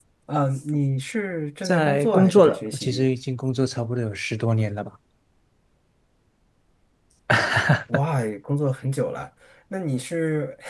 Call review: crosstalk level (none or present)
present